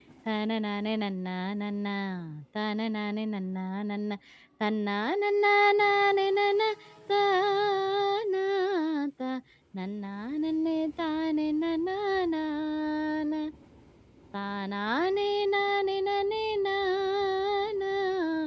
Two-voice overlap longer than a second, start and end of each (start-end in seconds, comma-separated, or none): none